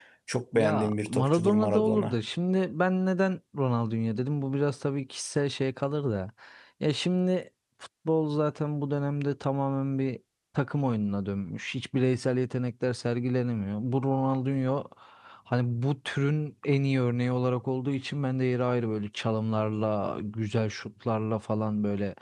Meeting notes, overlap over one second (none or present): present